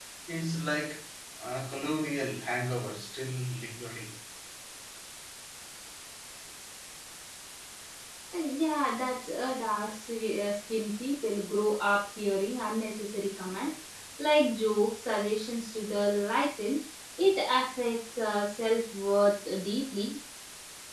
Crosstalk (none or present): none